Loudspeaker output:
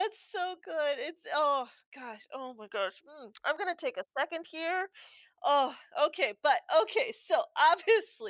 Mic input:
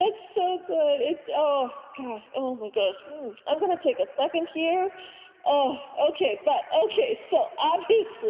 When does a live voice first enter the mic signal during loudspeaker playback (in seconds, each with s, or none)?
none